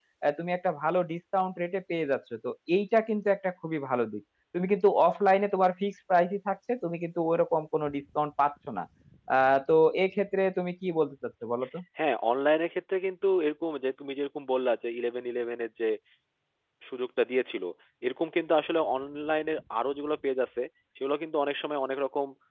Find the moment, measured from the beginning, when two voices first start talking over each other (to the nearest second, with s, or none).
none